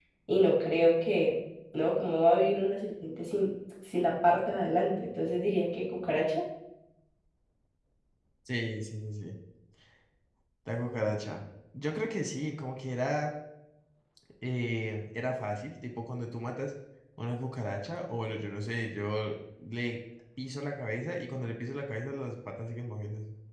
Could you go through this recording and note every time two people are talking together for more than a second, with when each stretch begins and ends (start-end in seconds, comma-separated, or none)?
none